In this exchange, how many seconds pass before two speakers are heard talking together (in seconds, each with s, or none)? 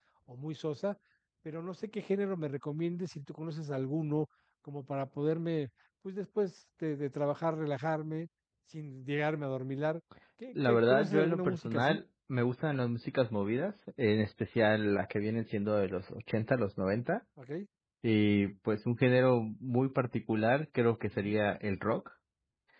10.6 s